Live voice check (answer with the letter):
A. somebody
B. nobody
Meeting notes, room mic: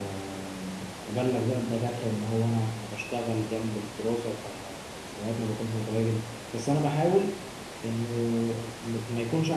A